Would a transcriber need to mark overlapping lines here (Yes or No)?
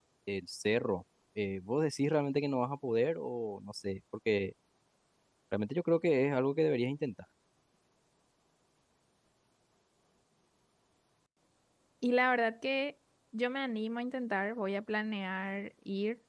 No